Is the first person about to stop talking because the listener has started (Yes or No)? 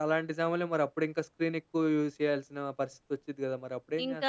Yes